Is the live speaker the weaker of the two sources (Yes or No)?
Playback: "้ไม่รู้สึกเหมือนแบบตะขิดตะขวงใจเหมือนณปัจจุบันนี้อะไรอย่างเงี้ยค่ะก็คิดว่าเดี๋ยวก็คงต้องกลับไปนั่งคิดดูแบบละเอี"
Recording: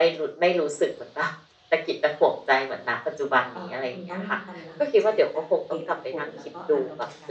Yes